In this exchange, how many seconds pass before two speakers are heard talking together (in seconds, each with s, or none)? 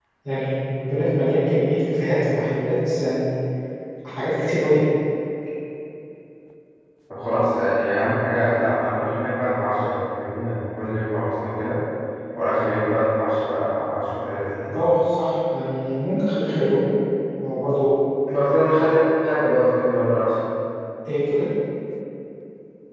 none